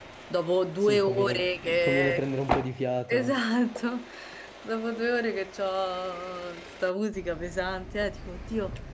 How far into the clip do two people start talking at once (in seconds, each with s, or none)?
0.8 s